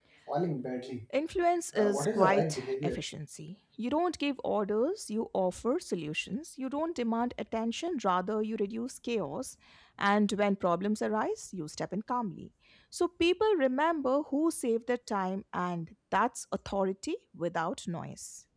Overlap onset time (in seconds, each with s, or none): 1.7 s